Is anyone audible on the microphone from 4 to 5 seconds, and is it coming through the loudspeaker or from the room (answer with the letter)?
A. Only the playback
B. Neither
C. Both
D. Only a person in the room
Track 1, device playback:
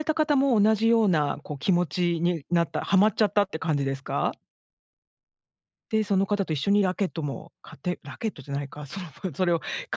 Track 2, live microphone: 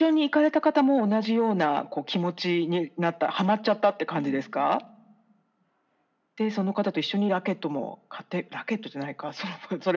C